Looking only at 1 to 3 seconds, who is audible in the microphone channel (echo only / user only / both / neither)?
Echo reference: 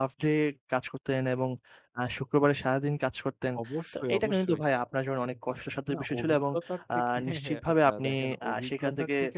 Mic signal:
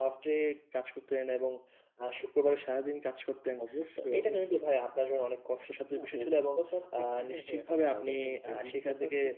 echo only